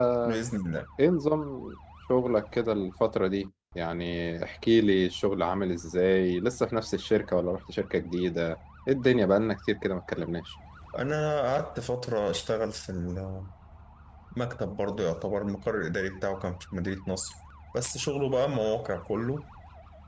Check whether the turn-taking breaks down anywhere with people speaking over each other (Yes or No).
No